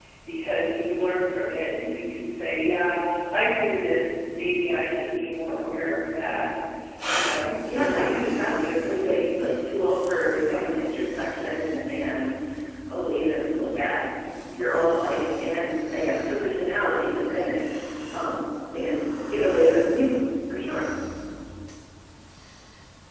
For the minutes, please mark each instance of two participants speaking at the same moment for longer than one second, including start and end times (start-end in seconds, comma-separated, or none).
7.2-9.4